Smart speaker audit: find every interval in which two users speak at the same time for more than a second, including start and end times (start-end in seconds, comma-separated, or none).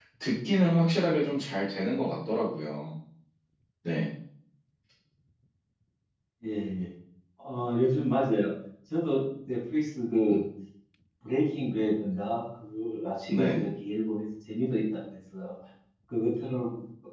none